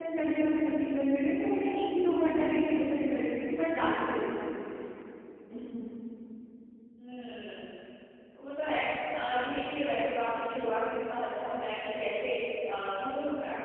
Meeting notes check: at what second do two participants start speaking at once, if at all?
none

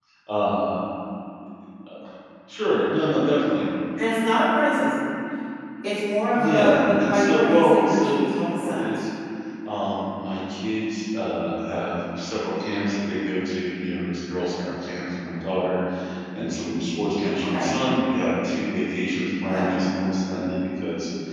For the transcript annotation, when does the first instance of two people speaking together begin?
6 s

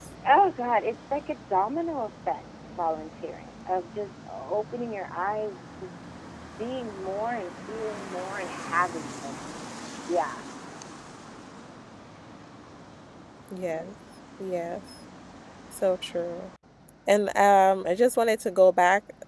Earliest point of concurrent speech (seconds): none

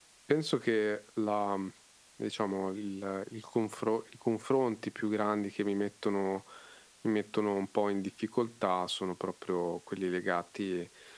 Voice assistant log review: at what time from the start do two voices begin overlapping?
none

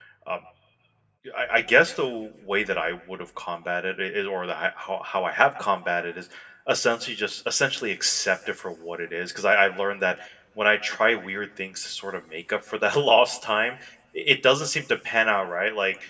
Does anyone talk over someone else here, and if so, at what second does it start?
none

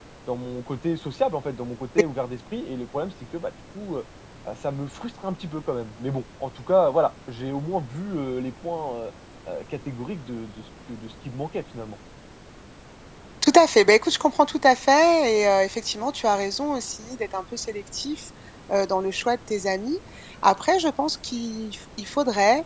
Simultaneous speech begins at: none

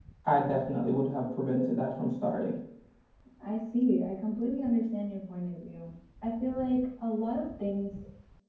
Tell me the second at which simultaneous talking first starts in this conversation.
none

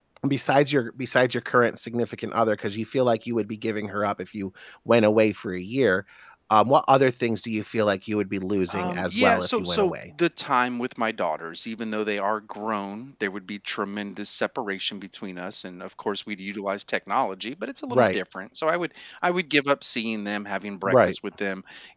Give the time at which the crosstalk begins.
9 s

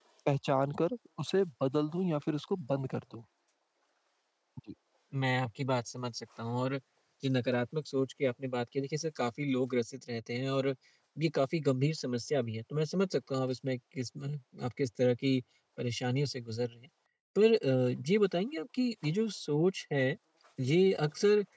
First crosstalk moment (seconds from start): none

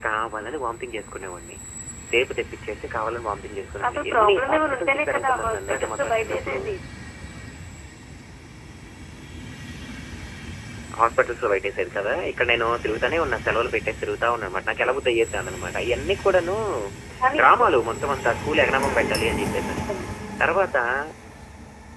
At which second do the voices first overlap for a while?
4 s

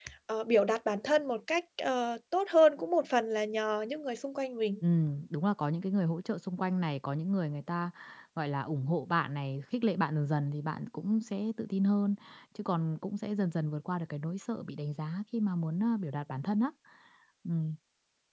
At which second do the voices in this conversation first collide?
none

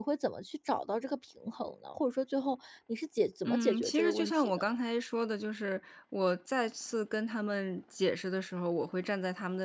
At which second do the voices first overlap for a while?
3 s

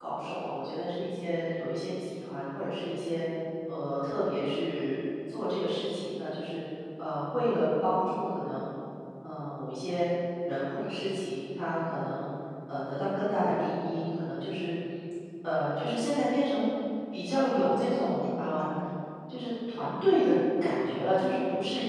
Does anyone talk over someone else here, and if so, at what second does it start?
17 s

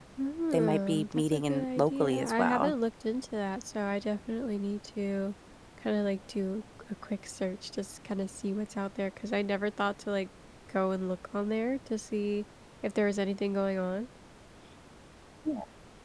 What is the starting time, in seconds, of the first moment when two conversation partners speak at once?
1 s

